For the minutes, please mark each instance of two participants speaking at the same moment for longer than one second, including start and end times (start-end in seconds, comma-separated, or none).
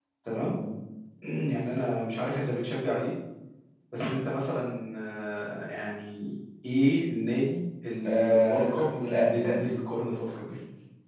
8.1-9.6